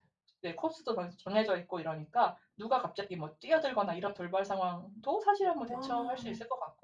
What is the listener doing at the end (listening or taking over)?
listening